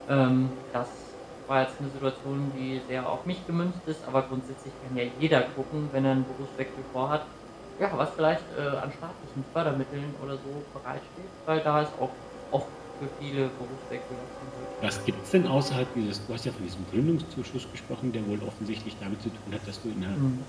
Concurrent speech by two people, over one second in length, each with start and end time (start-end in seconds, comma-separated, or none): none